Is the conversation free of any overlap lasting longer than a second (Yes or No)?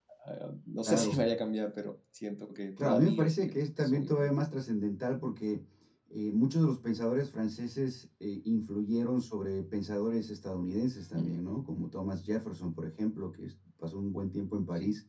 No